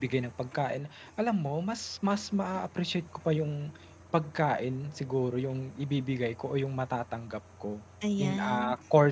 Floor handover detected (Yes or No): No